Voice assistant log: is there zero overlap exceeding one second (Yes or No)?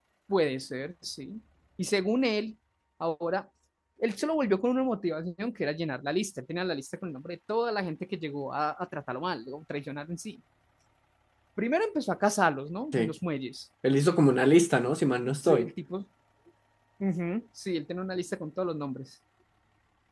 Yes